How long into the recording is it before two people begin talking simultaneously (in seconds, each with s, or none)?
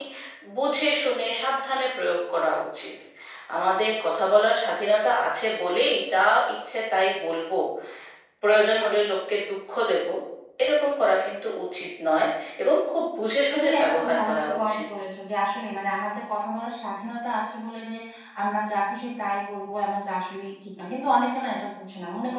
13.5 s